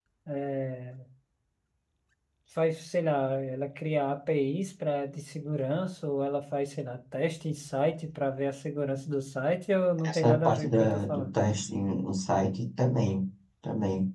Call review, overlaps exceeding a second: present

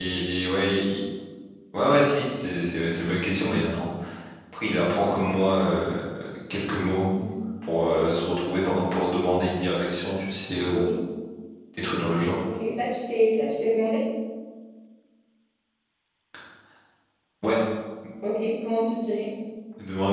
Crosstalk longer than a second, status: none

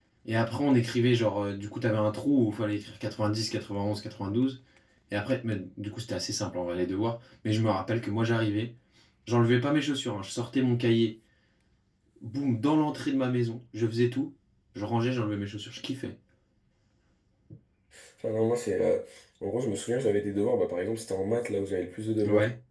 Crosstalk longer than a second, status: none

